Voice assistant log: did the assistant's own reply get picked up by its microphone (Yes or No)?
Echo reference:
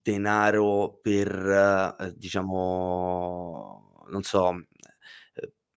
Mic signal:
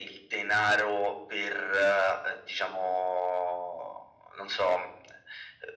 Yes